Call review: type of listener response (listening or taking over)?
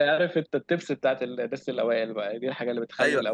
taking over